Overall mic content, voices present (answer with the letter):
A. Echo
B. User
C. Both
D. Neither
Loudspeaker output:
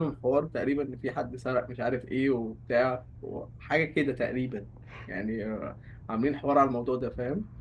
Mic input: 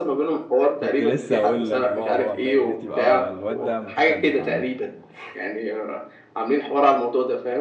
C